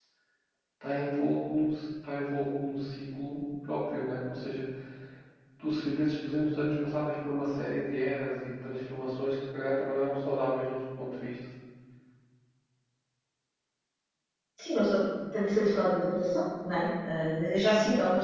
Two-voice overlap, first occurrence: none

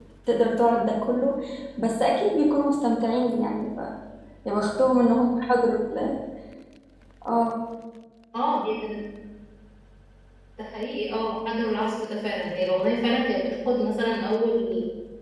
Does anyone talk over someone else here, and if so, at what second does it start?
none

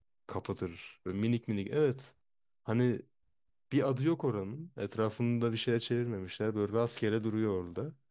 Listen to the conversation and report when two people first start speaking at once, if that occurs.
none

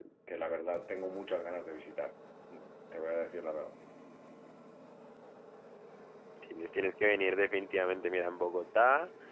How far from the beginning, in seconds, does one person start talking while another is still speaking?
none

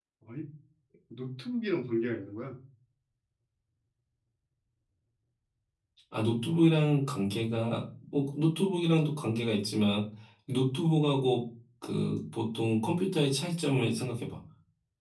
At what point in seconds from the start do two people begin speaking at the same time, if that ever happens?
none

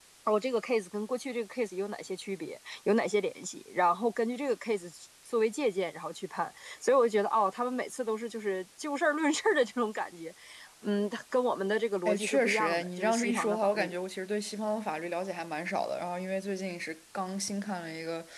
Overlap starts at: 12.1 s

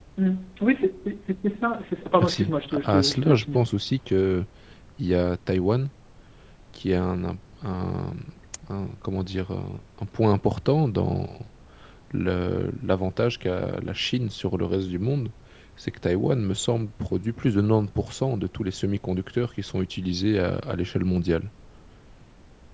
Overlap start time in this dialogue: 2.2 s

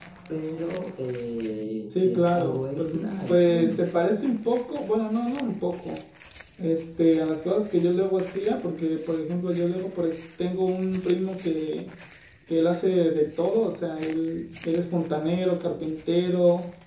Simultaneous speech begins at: 1.9 s

